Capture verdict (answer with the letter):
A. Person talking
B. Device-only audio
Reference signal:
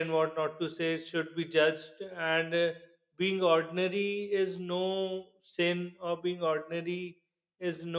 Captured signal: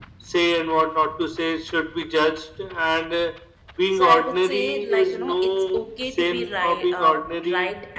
A